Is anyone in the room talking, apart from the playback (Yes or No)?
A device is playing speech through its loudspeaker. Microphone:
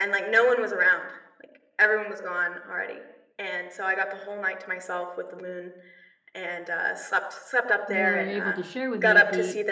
Yes